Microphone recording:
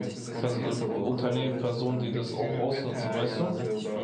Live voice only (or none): Pers Unternehmen, Personen, die das auch ausnutzen, weißt du?